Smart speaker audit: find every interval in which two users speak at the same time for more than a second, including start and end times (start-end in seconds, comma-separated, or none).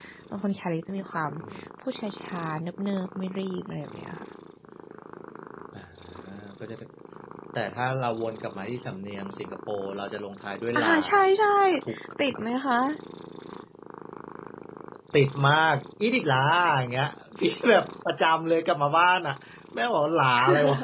none